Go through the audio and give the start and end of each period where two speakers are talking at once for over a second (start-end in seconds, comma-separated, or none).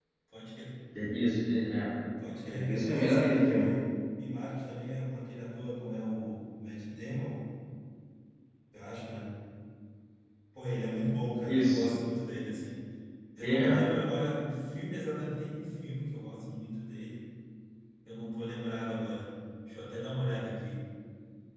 2.5-3.7